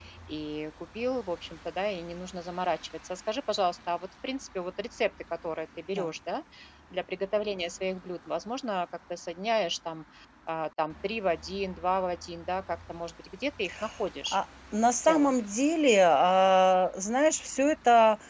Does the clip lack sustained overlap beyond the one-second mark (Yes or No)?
Yes